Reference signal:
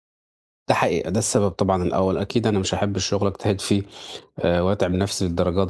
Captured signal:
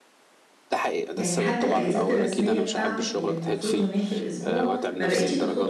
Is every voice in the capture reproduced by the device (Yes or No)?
No